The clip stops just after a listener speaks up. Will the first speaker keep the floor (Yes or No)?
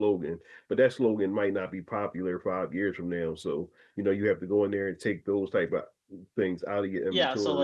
No